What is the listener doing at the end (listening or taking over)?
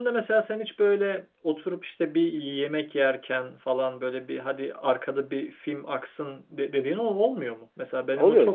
taking over